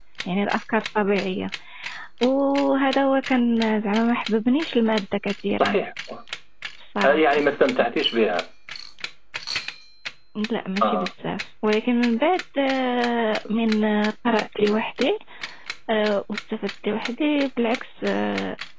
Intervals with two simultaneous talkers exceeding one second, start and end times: none

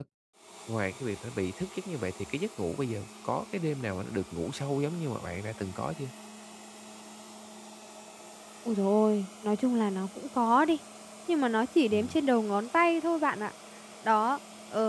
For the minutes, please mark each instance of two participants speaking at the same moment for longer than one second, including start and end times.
none

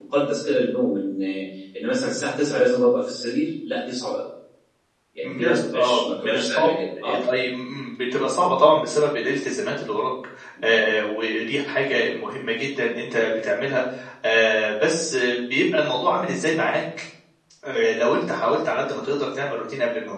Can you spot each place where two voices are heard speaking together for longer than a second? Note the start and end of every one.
5.2-6.7

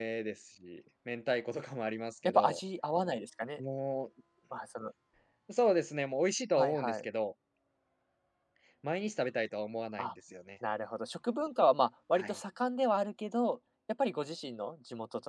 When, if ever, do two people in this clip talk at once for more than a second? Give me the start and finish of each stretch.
none

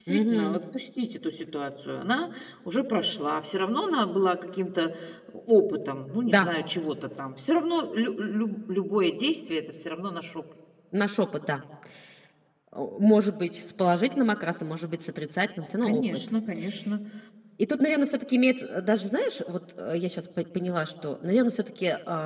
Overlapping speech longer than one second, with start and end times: none

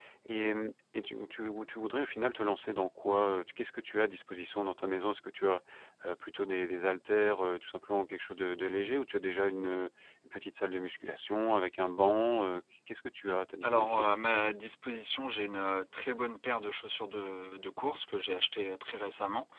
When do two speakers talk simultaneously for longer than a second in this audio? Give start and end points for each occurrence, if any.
none

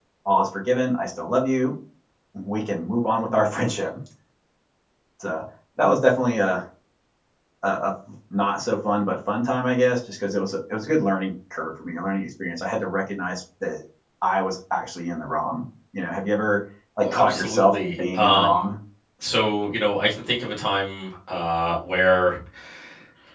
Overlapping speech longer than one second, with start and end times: 17.0-18.7

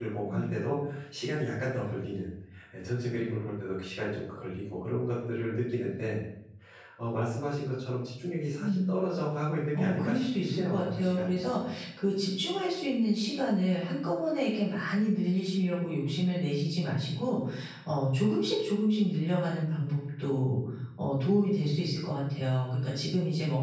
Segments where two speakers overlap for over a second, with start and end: 9.7-11.4

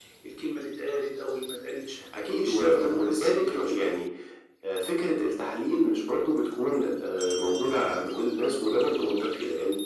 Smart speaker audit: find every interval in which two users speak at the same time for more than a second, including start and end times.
2.4-4.0

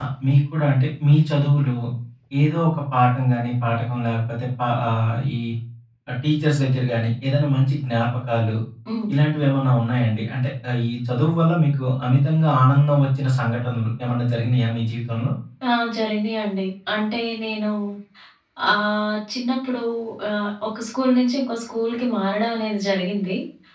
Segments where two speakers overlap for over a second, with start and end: none

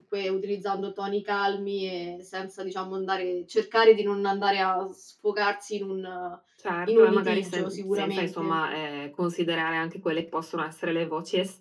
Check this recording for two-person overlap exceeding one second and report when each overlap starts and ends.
6.9-8.6

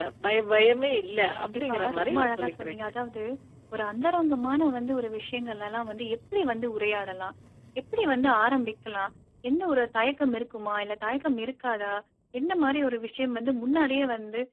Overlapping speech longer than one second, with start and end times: 1.3-2.9

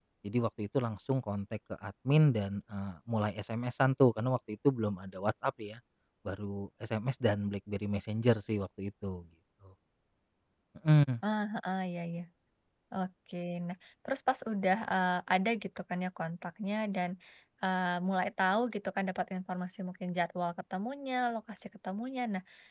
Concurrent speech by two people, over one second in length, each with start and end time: none

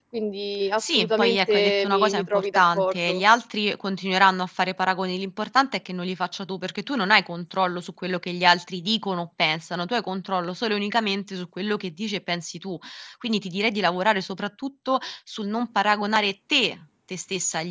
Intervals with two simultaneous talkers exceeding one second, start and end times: 0.8-3.2

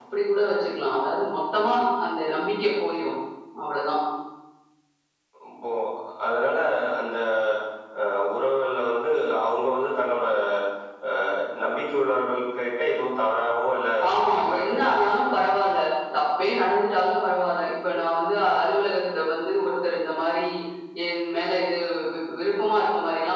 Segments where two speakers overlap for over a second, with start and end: 14.3-15.5

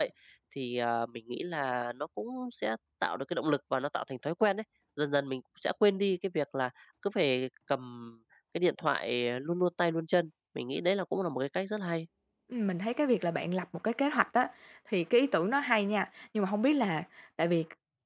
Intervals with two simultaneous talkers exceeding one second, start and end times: none

